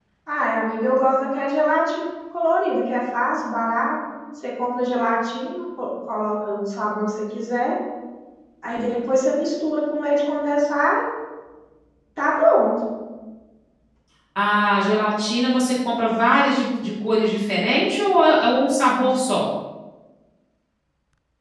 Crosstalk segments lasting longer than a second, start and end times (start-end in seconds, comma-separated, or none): none